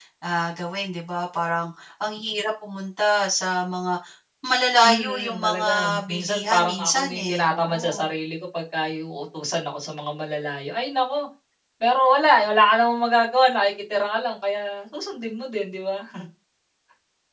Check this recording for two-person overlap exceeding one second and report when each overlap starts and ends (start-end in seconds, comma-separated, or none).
4.8-8.1